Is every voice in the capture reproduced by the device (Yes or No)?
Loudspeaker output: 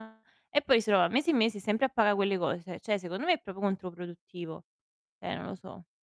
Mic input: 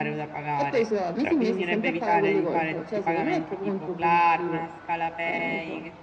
No